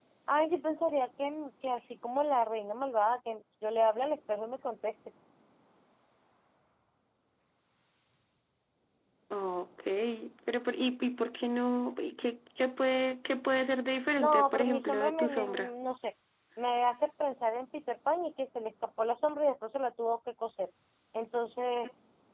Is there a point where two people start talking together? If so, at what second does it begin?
14.2 s

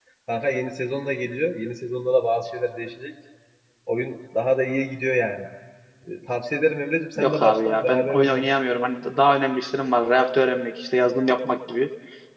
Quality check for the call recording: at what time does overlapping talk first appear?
7.2 s

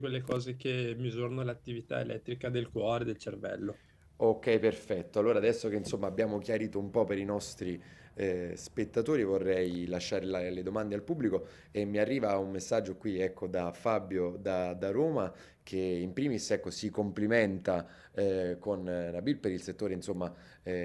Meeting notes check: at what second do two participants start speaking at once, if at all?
none

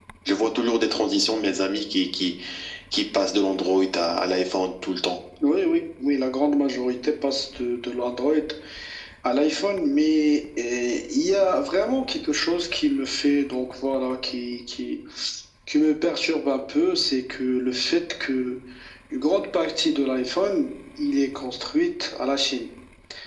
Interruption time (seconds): none

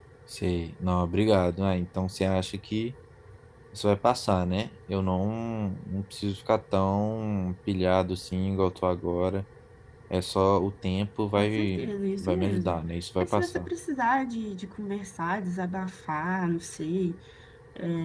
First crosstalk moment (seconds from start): 11.3 s

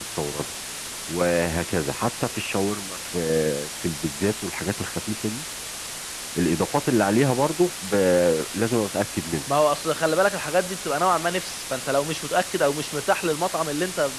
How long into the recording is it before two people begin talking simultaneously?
none

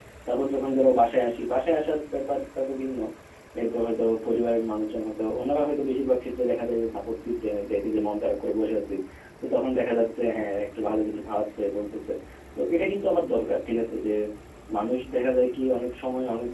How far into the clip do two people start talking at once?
none

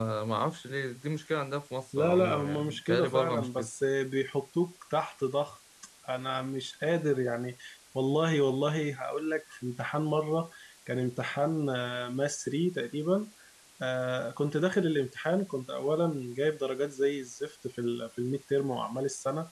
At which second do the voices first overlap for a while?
1.9 s

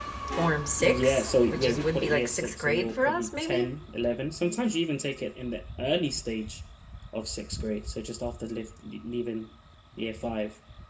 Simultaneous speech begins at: 0.8 s

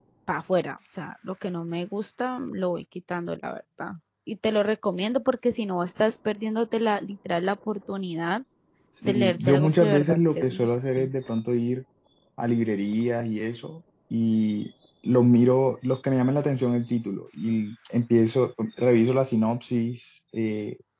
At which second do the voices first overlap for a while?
9.0 s

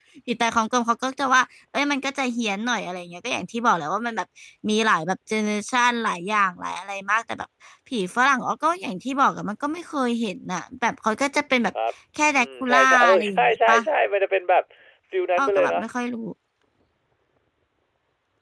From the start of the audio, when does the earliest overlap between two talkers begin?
12.3 s

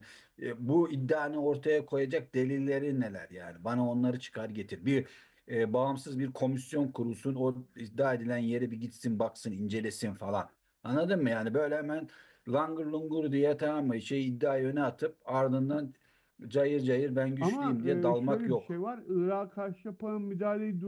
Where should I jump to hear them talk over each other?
17.4 s

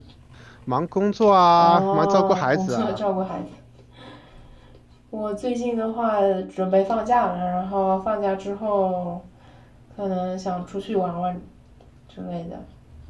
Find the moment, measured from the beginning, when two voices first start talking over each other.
1.6 s

